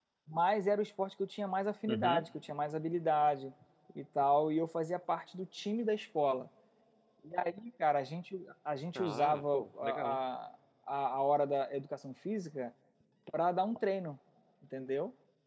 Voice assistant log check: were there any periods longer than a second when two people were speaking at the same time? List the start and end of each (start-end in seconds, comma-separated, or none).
9.0-10.2